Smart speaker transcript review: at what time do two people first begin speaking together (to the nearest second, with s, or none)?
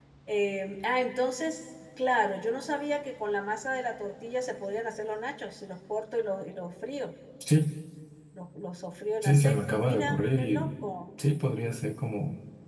9 s